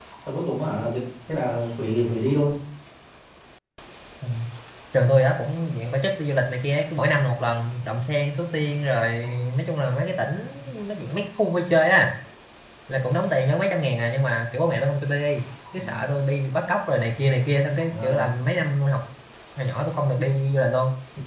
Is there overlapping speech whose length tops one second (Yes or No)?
No